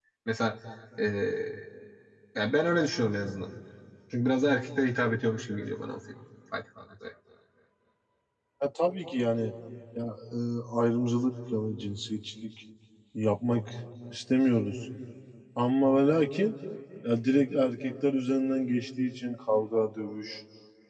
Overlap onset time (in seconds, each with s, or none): none